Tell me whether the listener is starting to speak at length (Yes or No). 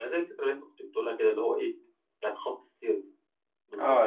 Yes